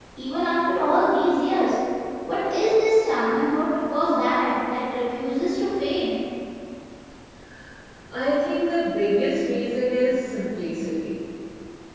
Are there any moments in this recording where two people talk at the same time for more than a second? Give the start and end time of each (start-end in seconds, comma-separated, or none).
none